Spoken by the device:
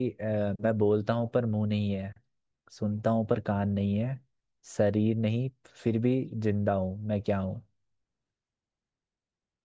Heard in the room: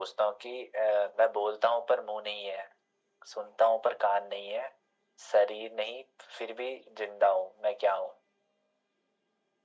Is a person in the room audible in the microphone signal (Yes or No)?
No